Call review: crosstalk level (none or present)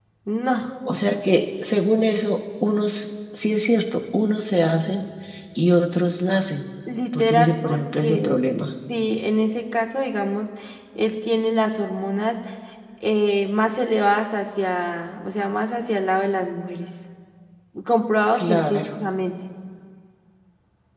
present